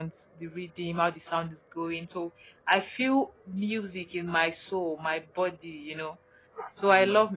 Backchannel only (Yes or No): Yes